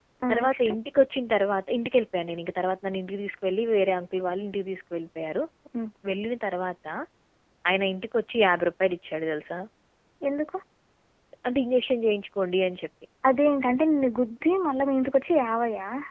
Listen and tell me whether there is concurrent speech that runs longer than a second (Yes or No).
No